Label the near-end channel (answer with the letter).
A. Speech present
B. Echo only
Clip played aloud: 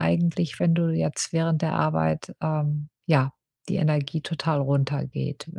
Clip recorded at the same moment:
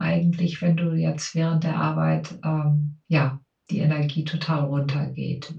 B